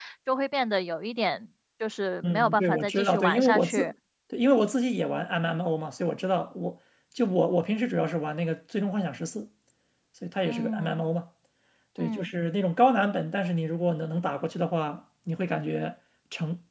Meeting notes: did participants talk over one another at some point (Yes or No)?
Yes